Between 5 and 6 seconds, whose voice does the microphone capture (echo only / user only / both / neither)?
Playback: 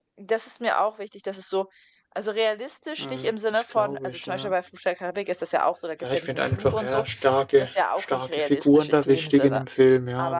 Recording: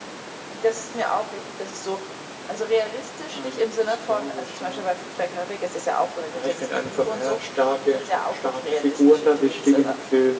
echo only